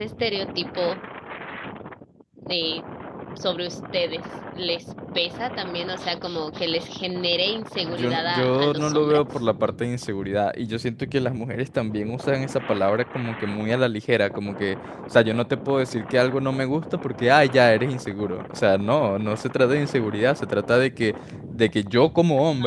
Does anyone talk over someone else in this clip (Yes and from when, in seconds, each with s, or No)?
Yes, from 7.8 s